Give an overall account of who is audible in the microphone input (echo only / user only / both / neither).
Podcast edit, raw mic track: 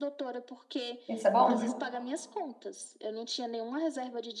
both